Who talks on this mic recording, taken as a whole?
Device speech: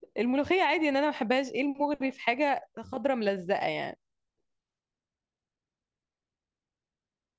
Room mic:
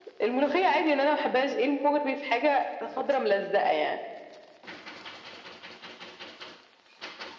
echo only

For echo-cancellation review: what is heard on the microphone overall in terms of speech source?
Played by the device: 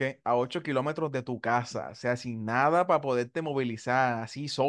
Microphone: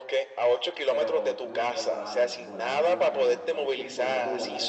both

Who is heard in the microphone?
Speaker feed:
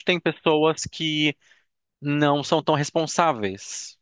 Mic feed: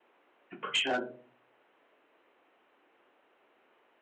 user only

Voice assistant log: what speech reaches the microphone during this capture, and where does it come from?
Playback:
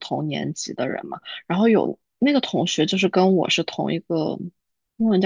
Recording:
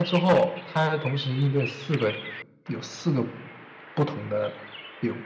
user only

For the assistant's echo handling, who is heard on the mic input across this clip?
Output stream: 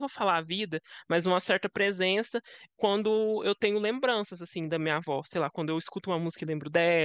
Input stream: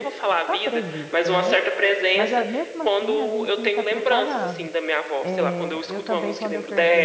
both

